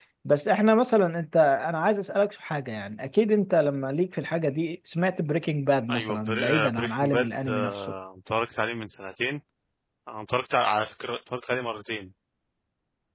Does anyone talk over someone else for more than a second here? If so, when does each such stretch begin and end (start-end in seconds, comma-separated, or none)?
5.9-7.9